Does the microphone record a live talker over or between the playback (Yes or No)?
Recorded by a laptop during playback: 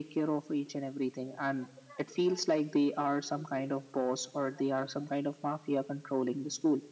No